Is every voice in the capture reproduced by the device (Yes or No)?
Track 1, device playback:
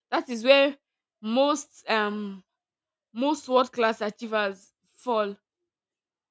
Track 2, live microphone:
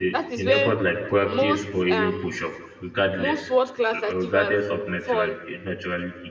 No